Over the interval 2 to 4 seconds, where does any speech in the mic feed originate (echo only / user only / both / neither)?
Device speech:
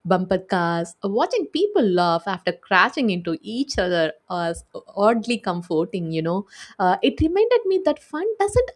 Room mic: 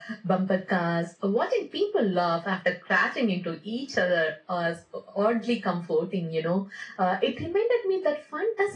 echo only